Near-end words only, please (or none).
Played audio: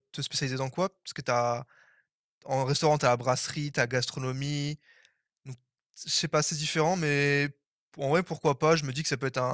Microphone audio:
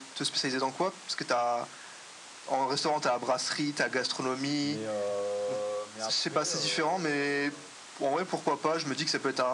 Mais, euh, mais après, euh,